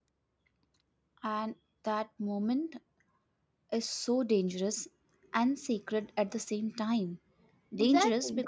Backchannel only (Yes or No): Yes